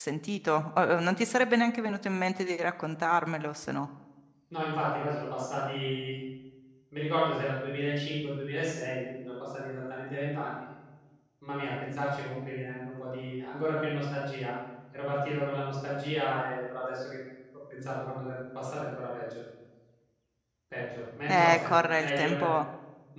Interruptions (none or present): present